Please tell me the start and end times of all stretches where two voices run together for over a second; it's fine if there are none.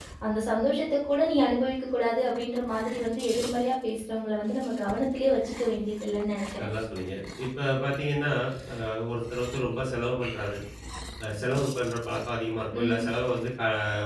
none

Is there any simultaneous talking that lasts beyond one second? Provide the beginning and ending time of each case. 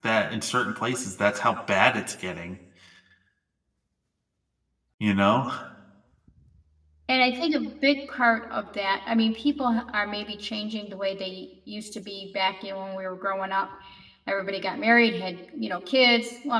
none

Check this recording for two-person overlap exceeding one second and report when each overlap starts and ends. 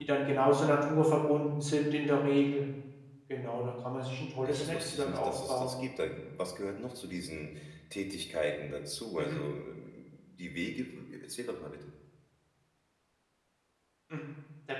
4.4-5.7

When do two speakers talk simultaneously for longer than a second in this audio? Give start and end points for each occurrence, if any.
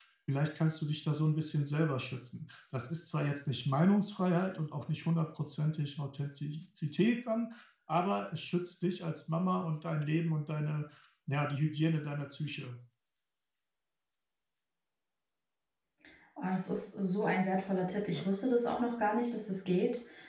none

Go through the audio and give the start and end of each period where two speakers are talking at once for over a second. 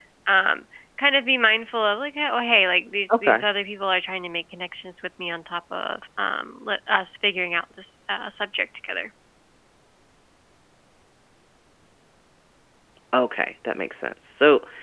none

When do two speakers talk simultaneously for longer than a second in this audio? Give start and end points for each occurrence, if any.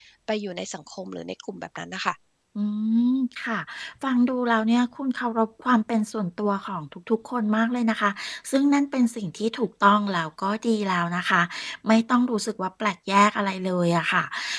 none

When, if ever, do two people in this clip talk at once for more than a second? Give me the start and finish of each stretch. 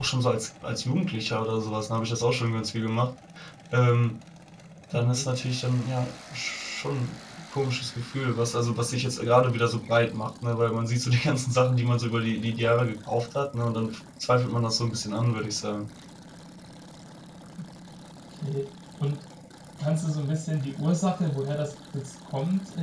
none

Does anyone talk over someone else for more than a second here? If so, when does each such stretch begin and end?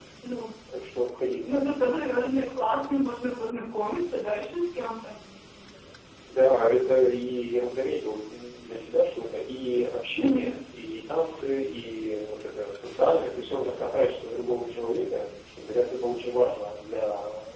none

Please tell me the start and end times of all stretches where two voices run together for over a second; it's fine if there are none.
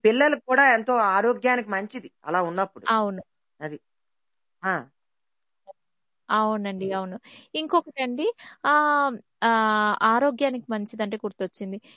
none

